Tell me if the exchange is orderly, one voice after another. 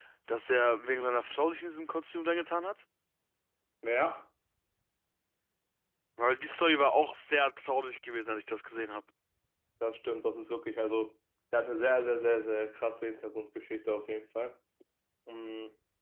Yes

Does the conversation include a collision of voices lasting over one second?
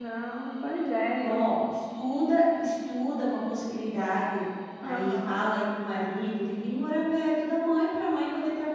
No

